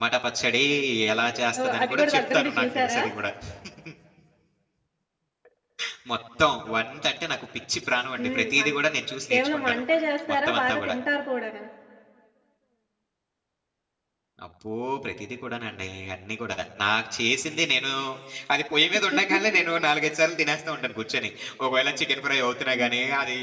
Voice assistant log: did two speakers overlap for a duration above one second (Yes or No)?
Yes